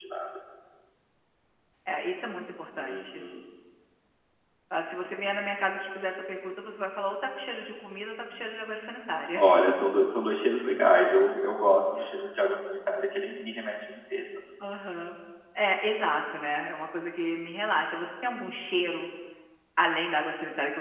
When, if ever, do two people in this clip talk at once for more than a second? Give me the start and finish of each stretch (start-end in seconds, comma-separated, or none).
none